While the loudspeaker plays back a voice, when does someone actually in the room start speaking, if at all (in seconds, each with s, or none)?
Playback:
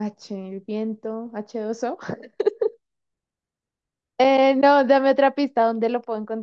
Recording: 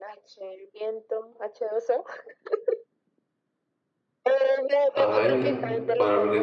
4.9 s